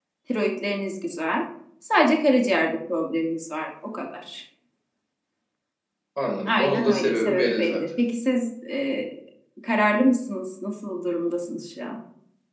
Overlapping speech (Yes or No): Yes